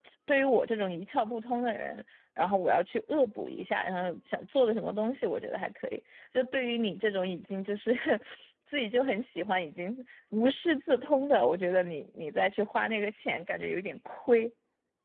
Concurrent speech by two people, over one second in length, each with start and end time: none

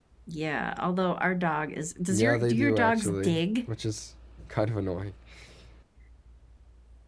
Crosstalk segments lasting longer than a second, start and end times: 2.1-3.7

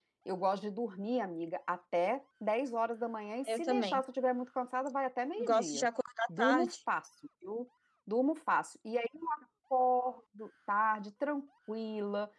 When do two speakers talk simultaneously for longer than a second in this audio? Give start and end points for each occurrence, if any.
none

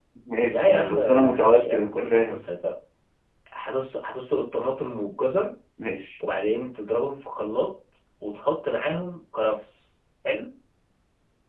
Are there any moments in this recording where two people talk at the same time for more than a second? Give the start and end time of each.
0.5-2.4

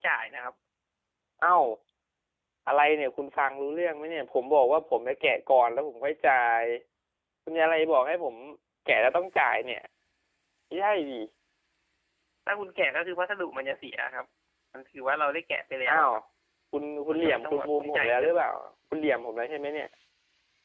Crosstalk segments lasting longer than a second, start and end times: 17.1-18.3

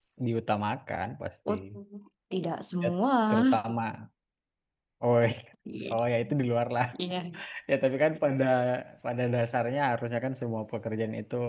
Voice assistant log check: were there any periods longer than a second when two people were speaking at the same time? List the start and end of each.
none

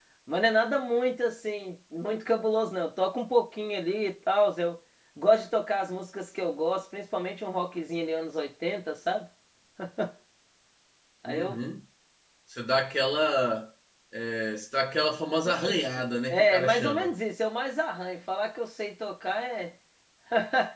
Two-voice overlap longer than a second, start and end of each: 15.4-17.1

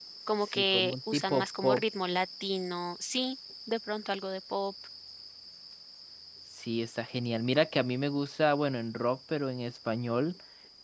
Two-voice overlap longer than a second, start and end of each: 0.6-1.8

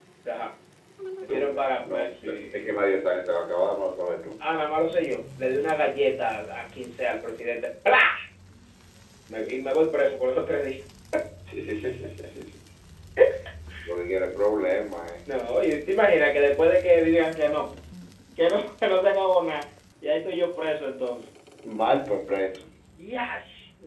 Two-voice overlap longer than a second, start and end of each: 1.3-2.7

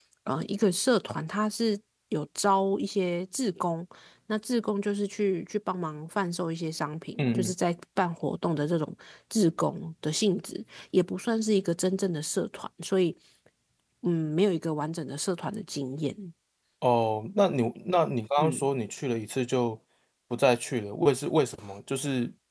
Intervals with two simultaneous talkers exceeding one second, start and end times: none

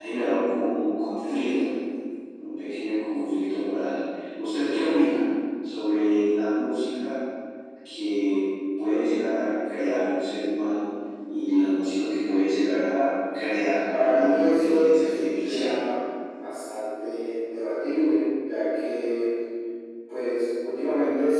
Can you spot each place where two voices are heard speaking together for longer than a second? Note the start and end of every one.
14.0-15.7

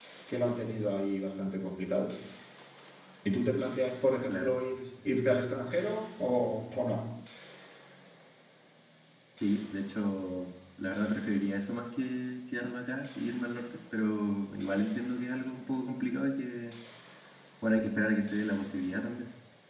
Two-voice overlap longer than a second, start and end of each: none

